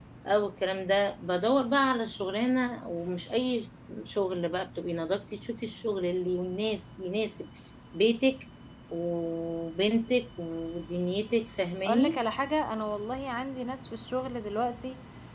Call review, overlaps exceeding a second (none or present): none